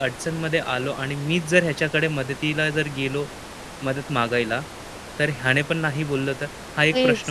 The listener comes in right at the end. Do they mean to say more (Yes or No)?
Yes